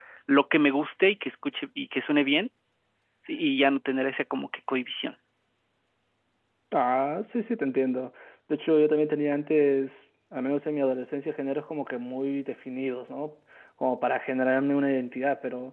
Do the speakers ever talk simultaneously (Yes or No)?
No